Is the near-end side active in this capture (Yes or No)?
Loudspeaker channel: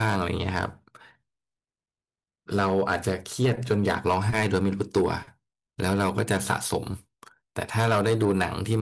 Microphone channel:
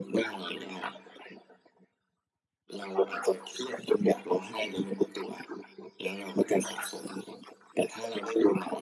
No